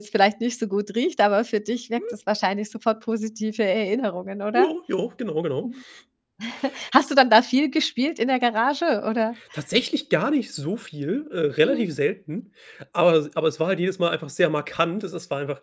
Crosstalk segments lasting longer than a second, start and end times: none

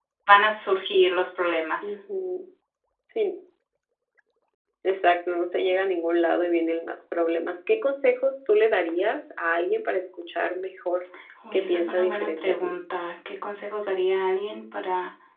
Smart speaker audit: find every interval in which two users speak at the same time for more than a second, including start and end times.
11.5-12.7

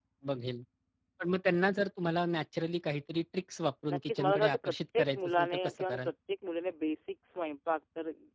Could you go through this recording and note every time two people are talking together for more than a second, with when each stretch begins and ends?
3.9-6.1

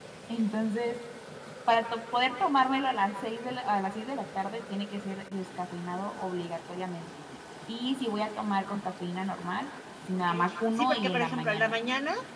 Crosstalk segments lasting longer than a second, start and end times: 10.1-11.7

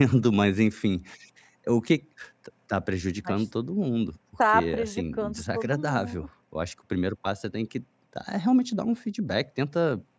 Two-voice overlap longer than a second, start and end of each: 4.5-6.3

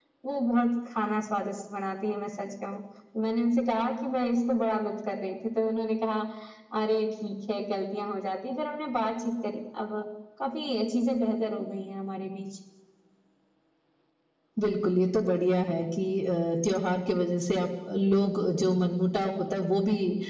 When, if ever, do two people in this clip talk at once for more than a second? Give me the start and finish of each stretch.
none

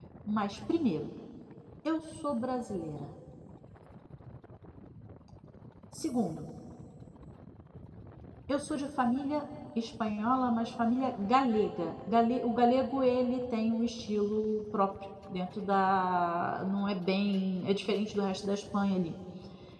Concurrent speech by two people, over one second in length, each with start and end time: none

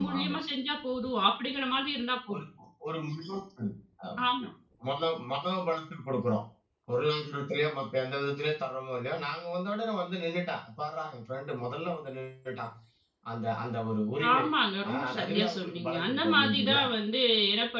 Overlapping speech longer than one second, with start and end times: 14.9-16.8

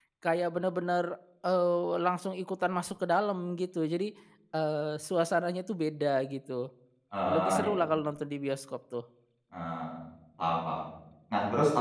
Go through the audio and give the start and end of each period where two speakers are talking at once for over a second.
none

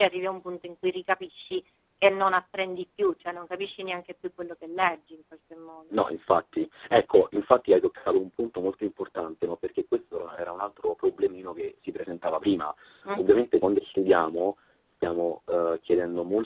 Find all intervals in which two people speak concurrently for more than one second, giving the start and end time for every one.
none

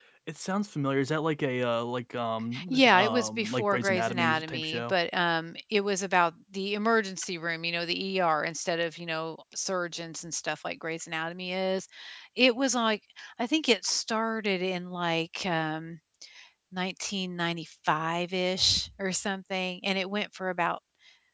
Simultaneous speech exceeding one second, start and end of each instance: 2.7-4.9

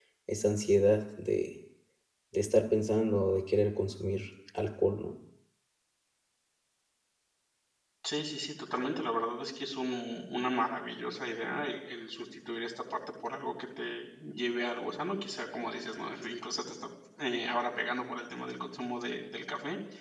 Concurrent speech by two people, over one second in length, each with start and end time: none

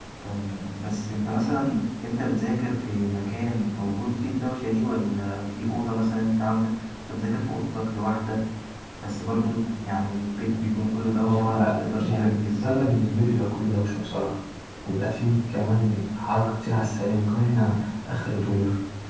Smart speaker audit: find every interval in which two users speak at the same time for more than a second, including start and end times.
11.2-12.6

